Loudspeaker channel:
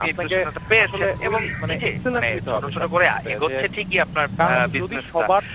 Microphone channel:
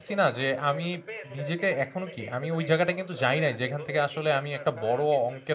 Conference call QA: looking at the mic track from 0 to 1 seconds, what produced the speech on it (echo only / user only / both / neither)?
both